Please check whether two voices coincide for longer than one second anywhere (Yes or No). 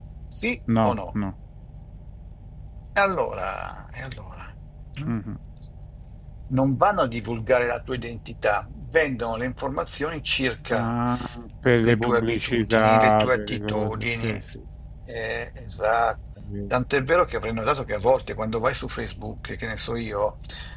Yes